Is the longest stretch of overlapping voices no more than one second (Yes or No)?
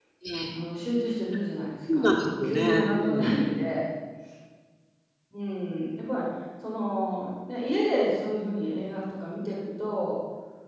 No